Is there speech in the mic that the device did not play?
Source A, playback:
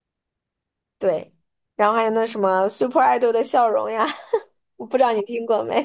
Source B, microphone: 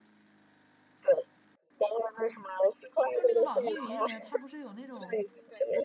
Yes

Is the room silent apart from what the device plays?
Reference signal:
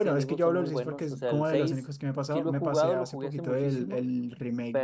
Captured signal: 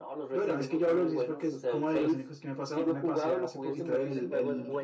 No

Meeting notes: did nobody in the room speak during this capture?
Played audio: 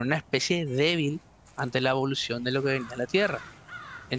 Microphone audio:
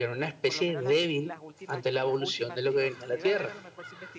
No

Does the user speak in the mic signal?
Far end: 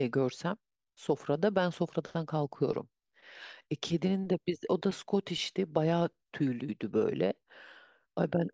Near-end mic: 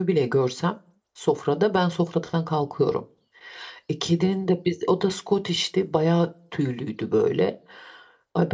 No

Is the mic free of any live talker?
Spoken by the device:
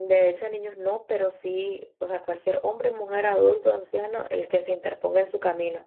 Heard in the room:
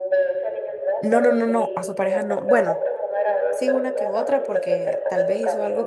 No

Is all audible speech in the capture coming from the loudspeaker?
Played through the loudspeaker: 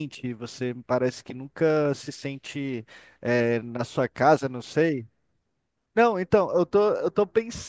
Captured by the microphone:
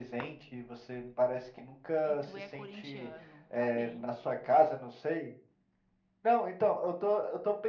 No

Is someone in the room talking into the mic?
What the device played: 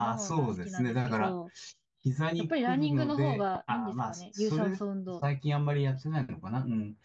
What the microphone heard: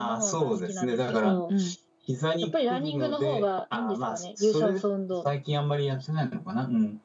Yes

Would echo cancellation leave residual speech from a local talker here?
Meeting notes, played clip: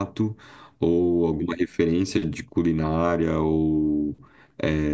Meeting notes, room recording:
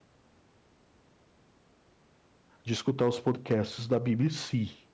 Yes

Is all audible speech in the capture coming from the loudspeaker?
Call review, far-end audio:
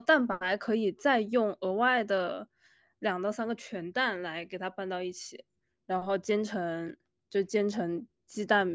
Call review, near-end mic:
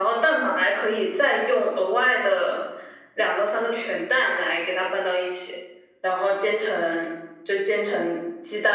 Yes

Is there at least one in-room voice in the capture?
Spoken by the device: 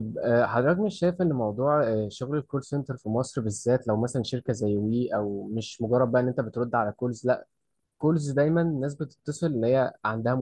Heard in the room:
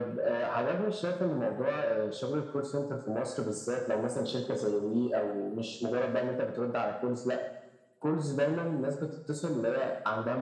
No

